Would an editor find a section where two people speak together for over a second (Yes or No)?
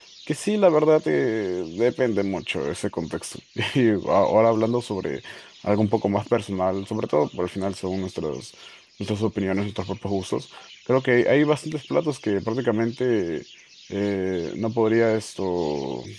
No